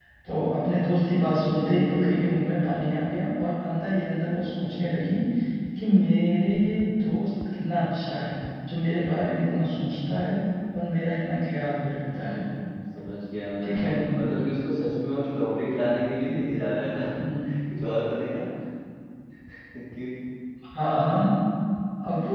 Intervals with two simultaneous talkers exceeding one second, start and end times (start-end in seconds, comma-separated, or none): none